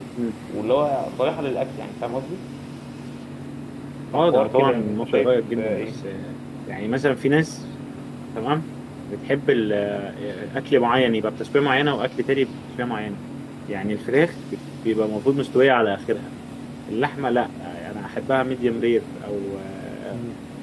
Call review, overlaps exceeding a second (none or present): present